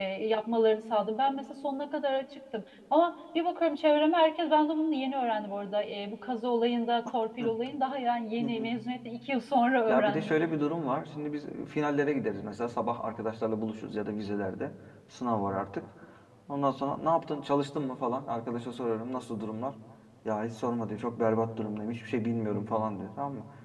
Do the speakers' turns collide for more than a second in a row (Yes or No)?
No